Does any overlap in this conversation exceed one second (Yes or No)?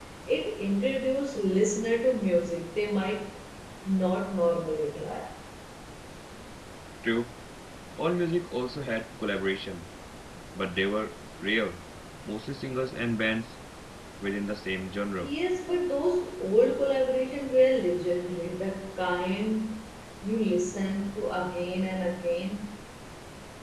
No